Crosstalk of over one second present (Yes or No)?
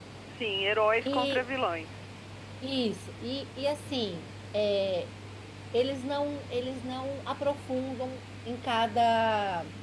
No